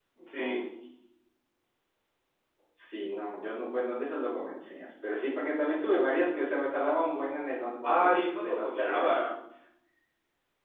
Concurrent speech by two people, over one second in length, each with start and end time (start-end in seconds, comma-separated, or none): 7.8-9.2